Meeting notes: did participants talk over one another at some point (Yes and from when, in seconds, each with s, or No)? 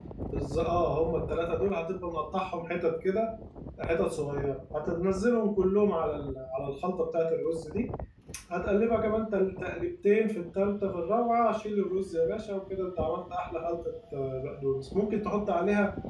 No